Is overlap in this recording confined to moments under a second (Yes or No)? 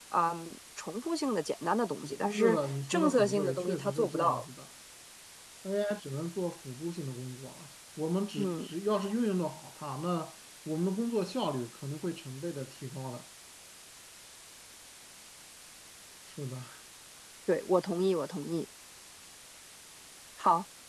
No